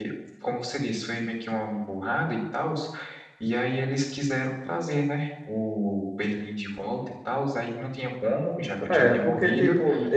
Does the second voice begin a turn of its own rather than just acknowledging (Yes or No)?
Yes